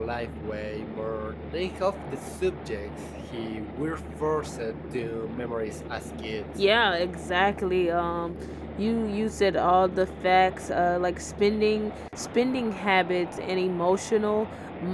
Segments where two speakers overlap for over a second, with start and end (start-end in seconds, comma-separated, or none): none